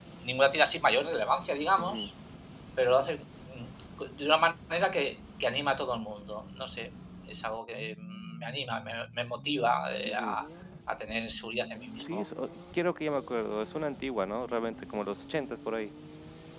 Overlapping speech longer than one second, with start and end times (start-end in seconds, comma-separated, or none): none